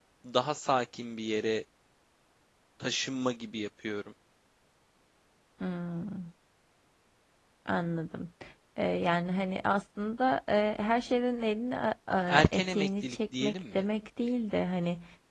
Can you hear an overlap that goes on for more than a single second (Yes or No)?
Yes